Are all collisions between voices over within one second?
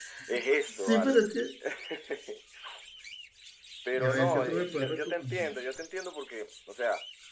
No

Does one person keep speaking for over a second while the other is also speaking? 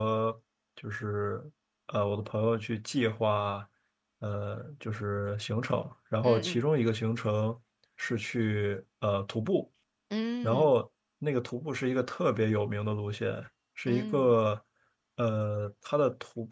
No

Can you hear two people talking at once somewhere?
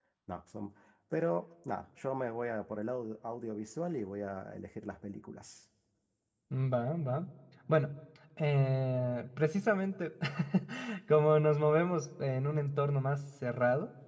No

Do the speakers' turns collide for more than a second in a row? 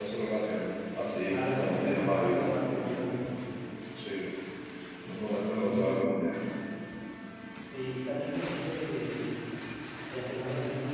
Yes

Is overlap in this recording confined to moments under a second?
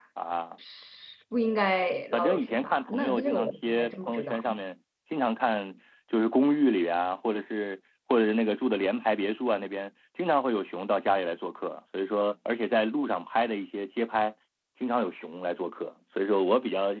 No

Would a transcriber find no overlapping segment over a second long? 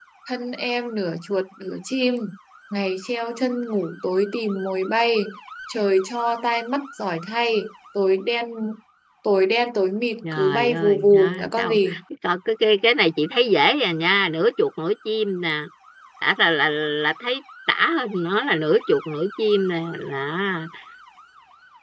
No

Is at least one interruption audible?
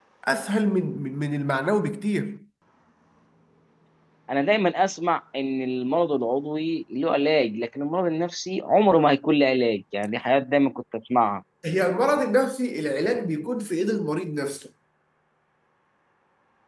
No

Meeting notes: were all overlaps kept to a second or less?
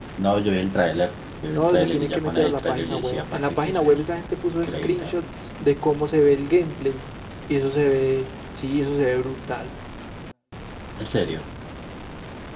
No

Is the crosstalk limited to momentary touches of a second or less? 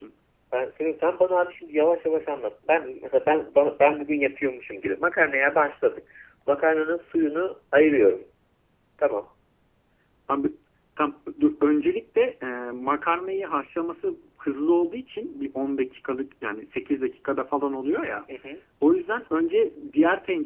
Yes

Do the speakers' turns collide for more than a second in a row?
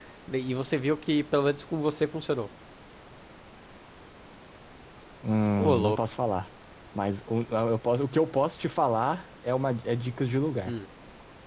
No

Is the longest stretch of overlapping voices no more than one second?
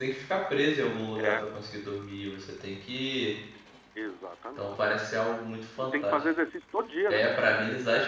Yes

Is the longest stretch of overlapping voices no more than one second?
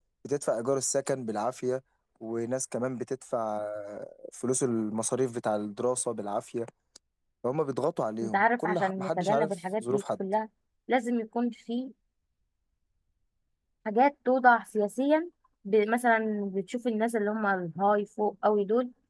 No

